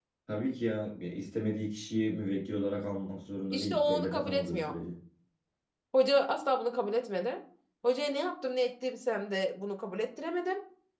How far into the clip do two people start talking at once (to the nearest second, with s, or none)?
4 s